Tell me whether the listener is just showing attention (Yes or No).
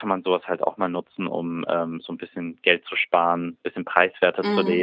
Yes